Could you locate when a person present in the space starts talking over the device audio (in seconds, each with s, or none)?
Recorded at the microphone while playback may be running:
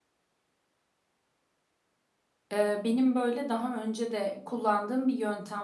2.5 s